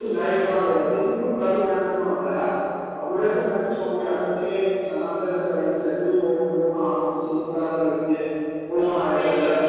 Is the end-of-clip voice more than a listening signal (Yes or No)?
Yes